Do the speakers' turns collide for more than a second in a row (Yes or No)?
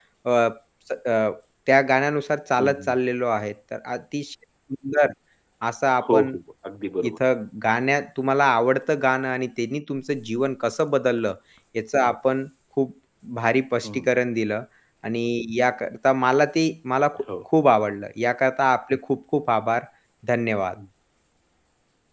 No